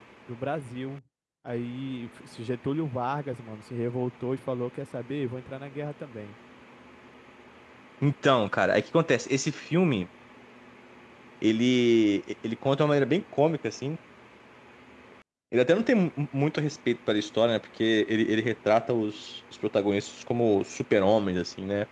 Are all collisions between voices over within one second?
Yes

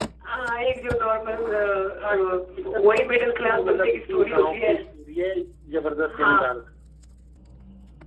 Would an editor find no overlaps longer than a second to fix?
No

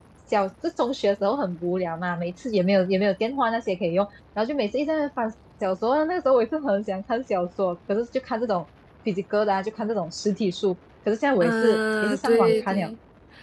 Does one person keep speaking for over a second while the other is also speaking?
Yes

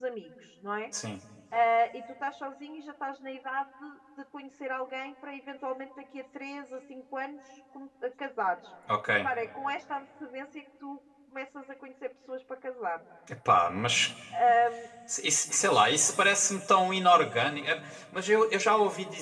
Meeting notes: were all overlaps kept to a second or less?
Yes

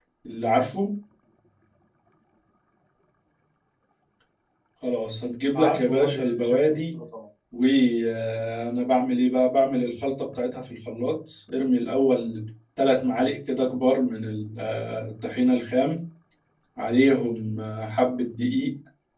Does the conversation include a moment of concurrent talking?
Yes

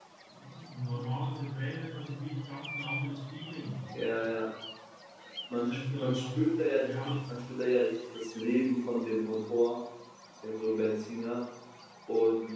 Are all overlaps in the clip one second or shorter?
No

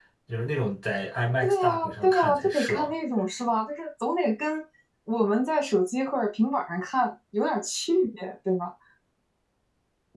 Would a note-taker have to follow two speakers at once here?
Yes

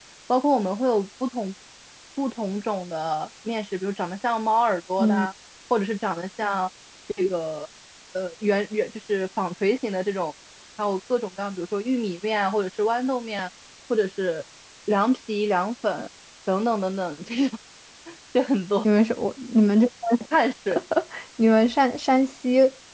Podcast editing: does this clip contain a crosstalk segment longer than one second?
No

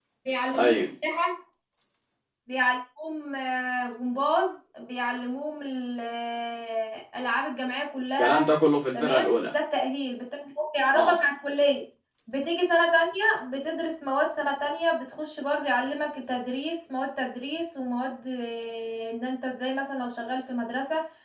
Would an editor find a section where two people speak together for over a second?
No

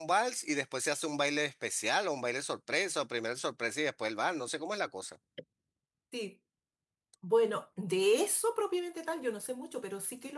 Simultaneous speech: No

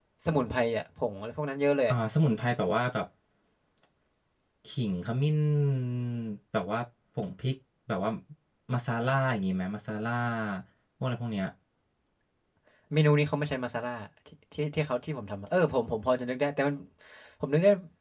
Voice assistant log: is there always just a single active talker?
Yes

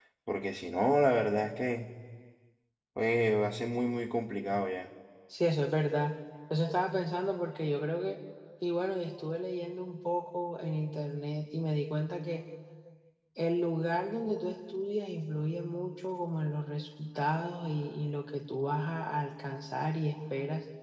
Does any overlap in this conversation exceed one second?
No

